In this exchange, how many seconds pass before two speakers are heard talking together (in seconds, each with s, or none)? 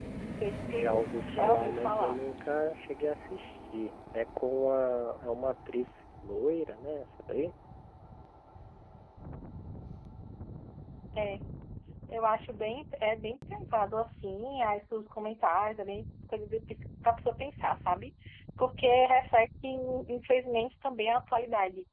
0.7 s